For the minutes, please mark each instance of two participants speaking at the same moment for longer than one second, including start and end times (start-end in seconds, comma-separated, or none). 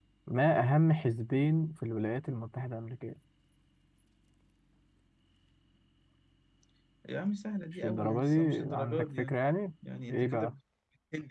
7.8-9.3